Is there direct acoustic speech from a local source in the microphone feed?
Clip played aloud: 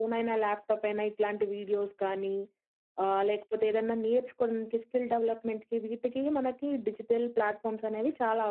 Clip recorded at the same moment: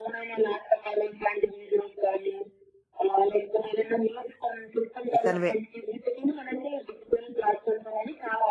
Yes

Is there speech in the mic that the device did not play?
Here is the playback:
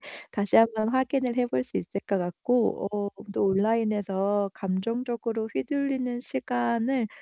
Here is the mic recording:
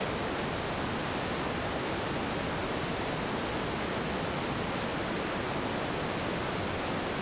No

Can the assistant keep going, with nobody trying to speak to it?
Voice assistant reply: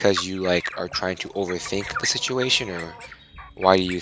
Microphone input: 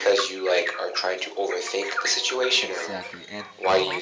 No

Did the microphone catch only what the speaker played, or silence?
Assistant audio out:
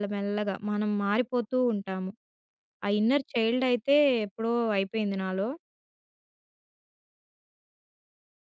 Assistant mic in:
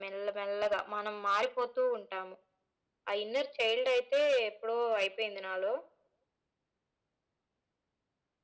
Yes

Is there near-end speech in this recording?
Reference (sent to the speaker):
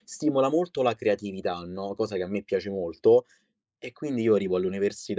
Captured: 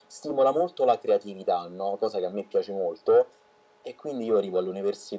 No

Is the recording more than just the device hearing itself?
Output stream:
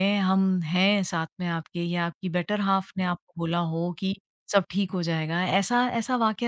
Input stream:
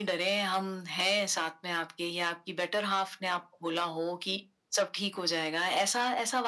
No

